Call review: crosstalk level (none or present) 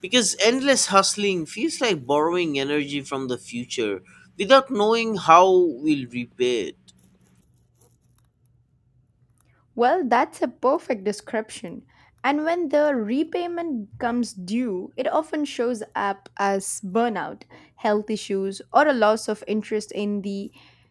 none